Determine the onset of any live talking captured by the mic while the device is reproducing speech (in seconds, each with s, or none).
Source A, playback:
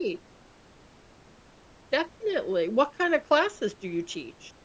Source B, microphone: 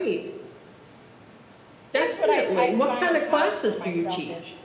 1.9 s